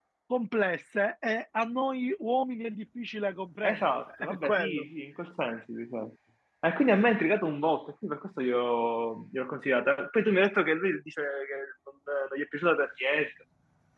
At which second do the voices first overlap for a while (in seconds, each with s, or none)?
3.6 s